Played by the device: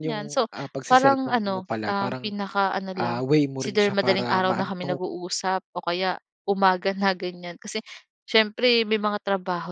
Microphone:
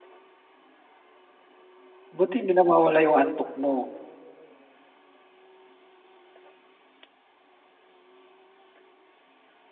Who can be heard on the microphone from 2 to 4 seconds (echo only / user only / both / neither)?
user only